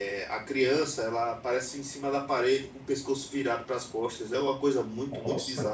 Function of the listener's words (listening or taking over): taking over